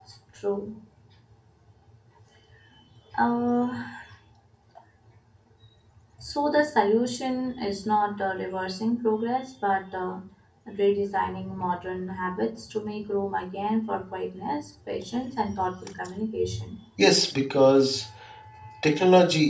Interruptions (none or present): none